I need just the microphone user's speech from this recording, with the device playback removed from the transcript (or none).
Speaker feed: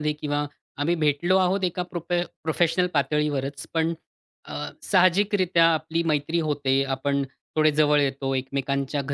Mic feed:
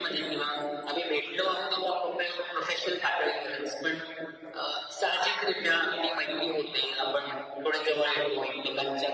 none